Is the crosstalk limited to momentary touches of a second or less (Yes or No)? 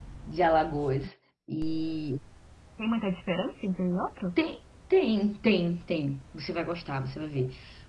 Yes